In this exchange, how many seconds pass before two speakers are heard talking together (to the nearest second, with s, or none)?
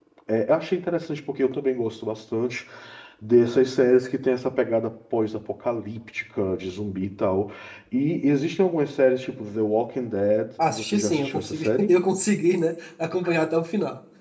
11 s